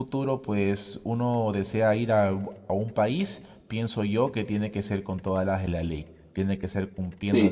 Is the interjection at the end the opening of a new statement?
Yes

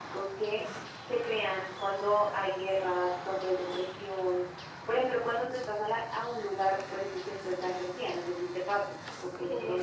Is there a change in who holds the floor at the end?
Yes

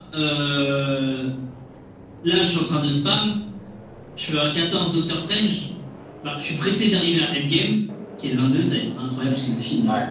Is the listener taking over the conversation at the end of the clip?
Yes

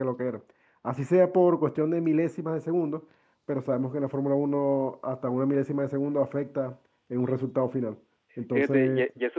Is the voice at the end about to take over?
Yes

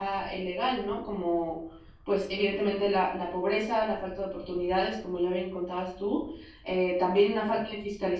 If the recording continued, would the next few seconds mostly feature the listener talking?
No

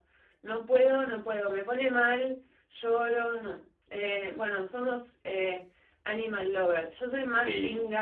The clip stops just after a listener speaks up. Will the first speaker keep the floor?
Yes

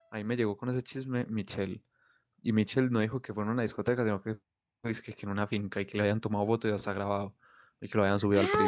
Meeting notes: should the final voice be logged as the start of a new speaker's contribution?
Yes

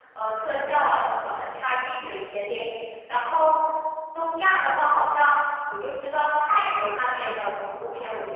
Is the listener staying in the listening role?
Yes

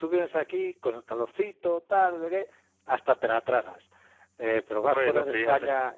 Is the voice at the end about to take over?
No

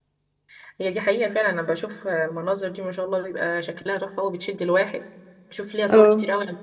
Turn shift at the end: No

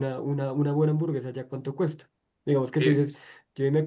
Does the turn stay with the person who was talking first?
Yes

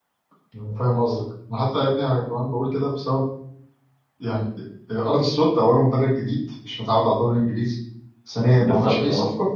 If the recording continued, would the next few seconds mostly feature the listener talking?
No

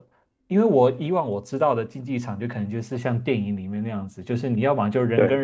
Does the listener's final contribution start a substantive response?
No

